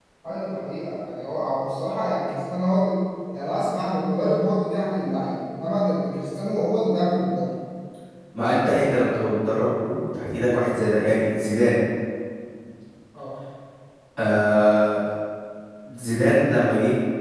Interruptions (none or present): none